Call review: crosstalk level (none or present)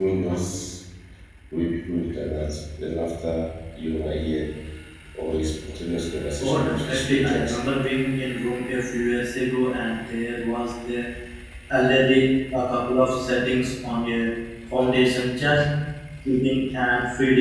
present